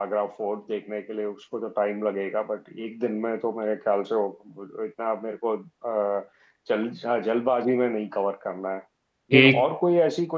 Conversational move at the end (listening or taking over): listening